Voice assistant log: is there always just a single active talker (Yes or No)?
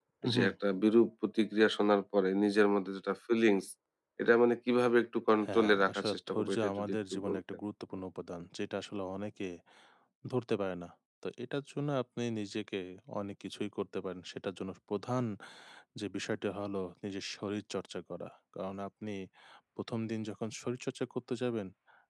No